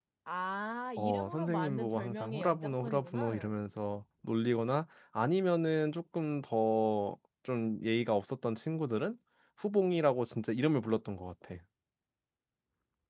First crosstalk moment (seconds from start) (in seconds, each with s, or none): 1.0 s